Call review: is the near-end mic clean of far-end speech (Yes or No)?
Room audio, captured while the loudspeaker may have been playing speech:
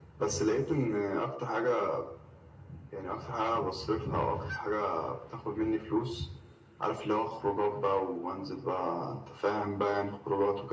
No